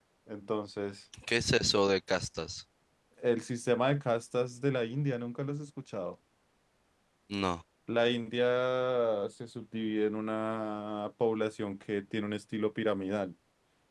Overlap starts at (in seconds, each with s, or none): none